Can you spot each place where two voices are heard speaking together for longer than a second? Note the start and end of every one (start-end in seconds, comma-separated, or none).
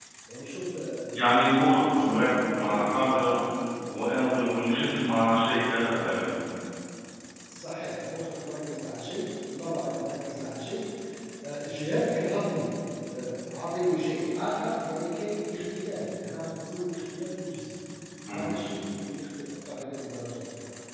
1.1-3.2